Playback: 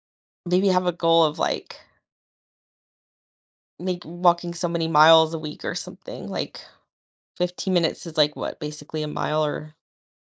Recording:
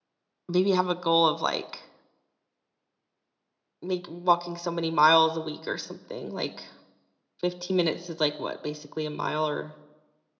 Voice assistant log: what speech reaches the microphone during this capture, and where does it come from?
echo only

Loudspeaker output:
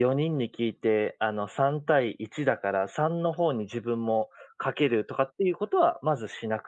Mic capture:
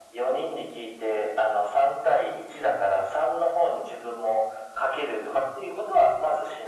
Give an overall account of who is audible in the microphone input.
echo only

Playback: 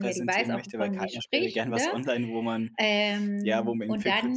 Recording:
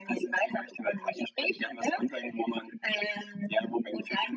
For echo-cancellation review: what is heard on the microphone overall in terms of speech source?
echo only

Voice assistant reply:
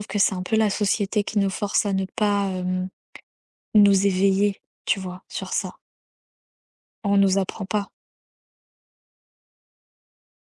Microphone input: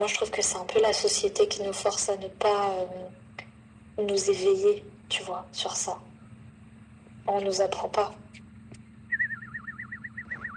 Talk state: echo only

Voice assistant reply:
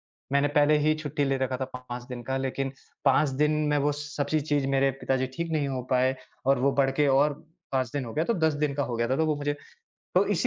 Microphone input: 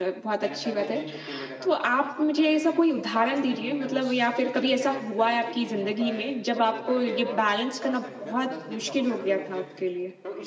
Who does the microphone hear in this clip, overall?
both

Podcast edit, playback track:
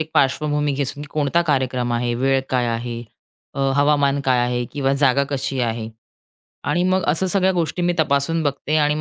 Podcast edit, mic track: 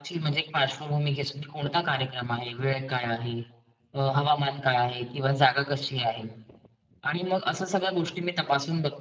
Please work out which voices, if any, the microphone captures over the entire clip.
echo only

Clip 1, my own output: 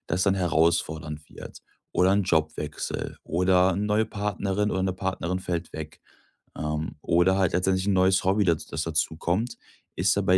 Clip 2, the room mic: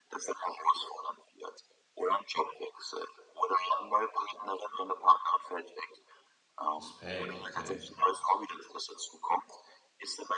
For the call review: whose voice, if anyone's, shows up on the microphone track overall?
both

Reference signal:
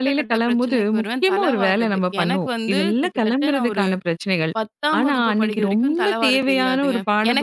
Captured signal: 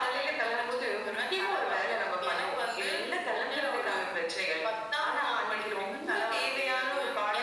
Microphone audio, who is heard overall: echo only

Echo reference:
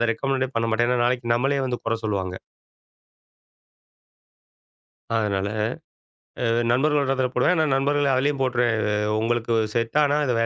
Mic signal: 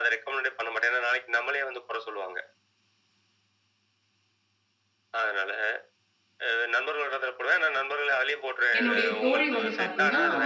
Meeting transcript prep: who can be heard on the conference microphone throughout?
both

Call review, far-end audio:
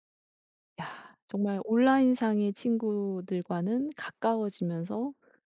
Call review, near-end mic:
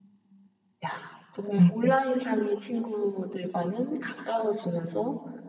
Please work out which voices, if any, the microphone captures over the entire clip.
both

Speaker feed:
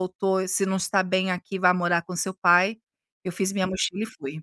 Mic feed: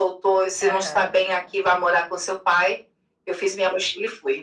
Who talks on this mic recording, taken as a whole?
both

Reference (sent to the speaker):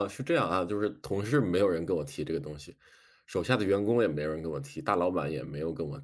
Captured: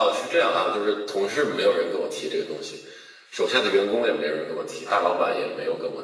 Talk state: echo only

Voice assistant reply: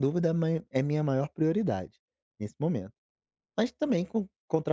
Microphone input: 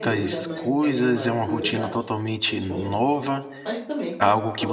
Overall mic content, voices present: both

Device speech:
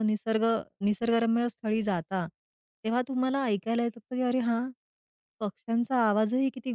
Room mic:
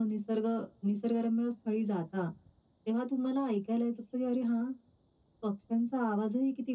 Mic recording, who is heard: echo only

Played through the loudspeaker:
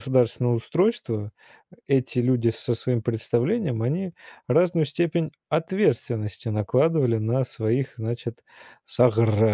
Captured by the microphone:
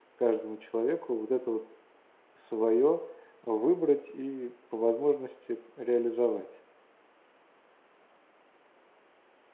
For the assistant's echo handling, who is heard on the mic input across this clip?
user only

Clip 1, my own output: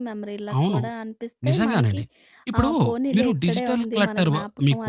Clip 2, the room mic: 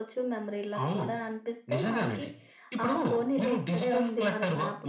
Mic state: echo only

